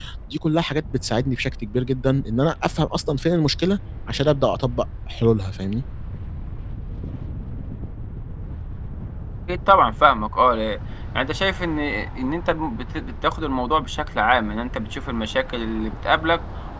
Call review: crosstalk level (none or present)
none